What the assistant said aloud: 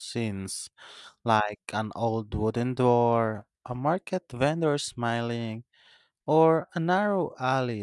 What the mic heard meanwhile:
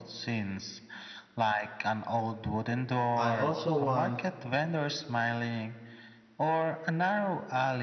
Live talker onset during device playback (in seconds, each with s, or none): 3.2 s